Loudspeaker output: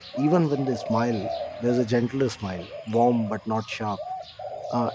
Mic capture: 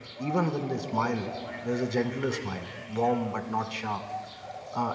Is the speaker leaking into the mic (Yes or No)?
Yes